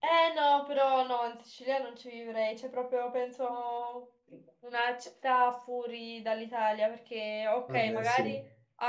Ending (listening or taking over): listening